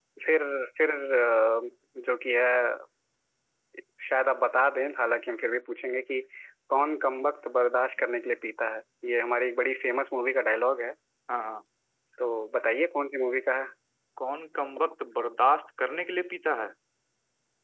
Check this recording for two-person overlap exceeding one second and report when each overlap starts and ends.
none

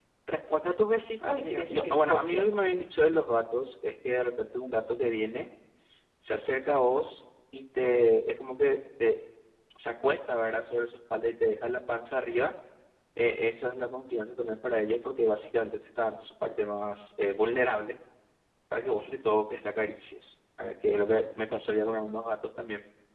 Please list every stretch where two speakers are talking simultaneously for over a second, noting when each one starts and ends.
1.2-2.8

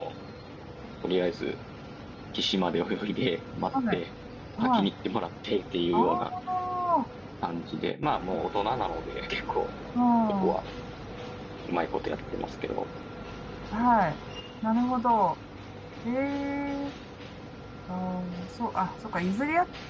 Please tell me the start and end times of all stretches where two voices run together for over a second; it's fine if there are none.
none

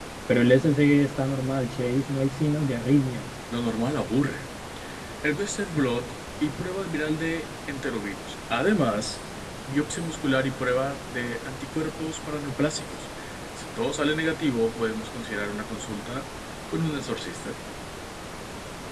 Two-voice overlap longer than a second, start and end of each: none

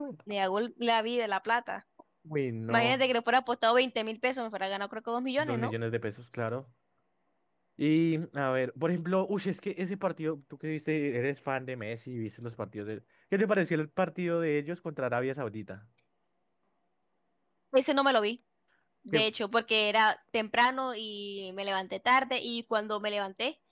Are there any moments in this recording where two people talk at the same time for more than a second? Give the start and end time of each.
none

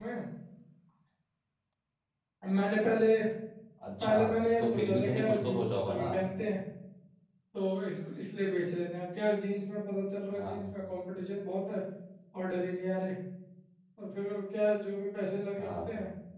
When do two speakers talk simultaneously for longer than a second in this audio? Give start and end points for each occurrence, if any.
4.6-6.1

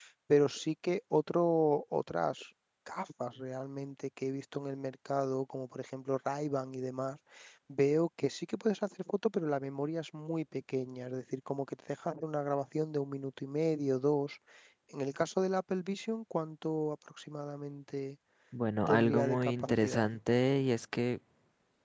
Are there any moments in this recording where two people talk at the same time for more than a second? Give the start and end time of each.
18.9-20.1

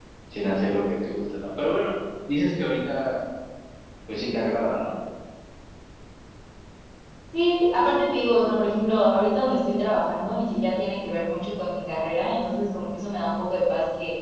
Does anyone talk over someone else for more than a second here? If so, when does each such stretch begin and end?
none

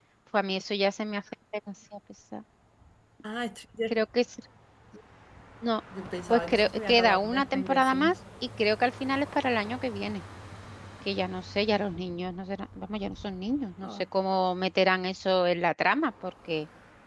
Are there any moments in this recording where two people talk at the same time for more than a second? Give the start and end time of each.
6.3-8.1

